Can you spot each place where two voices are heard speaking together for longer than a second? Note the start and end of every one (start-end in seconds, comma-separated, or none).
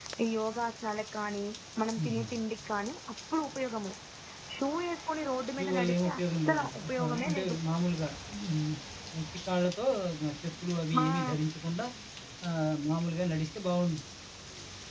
5.6-7.6